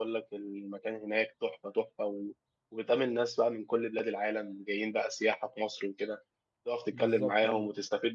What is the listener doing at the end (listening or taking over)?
listening